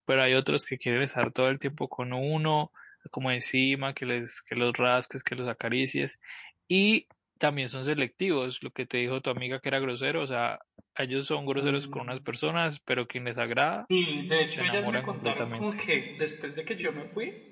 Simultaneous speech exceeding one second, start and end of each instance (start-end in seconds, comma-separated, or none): 14.5-15.8